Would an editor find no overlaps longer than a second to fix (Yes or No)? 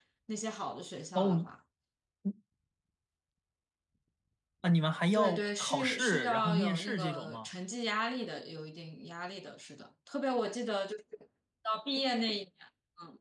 No